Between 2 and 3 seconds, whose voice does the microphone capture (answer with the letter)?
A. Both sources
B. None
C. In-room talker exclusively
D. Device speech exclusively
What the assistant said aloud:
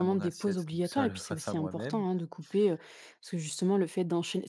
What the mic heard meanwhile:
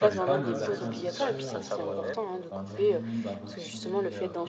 A